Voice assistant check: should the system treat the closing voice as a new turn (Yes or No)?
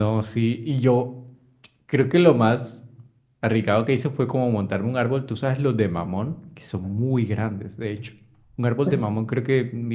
No